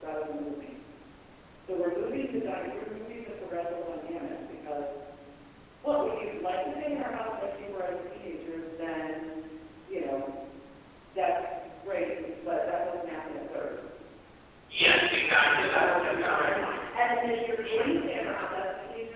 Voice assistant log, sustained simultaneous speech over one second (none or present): present